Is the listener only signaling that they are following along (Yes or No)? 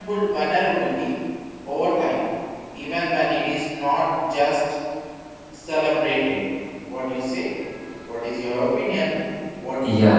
No